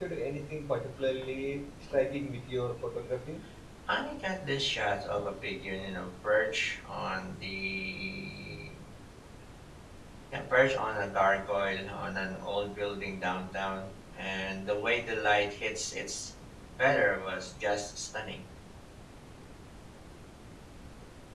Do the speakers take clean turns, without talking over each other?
Yes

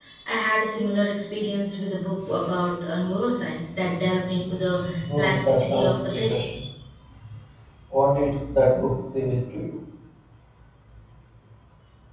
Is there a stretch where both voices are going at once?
Yes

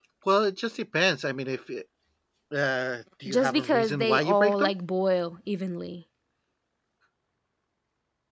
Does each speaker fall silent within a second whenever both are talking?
No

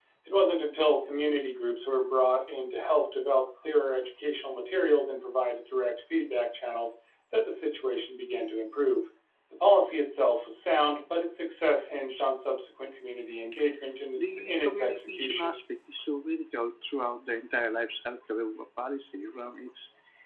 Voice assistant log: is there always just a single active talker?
No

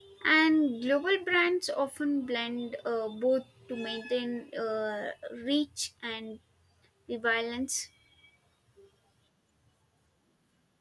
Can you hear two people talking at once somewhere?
No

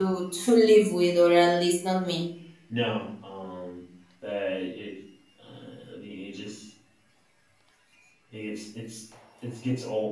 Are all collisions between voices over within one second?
Yes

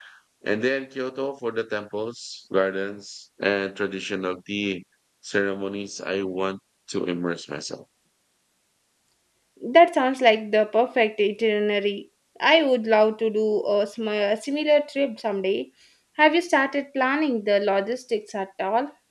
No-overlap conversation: Yes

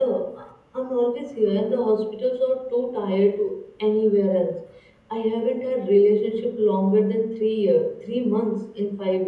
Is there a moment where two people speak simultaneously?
No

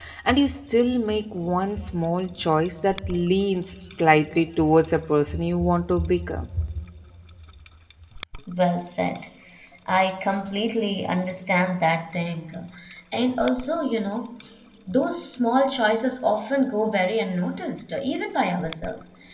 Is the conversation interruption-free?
Yes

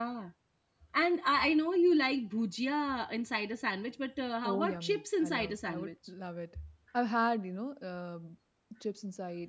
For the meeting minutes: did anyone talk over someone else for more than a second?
Yes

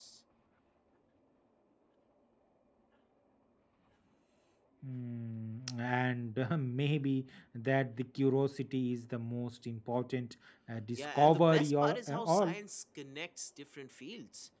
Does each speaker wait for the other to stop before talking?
No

